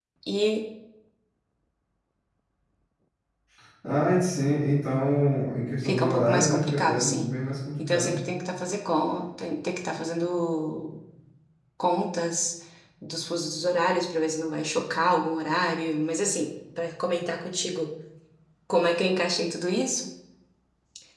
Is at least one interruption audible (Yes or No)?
Yes